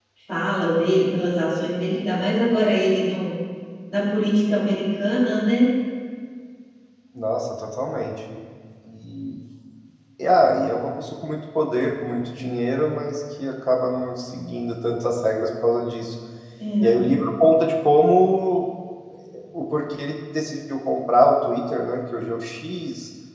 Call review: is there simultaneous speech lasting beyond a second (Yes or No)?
No